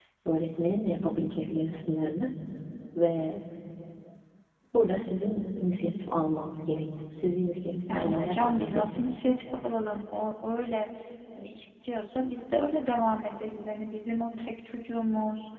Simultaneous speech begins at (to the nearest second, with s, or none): 8 s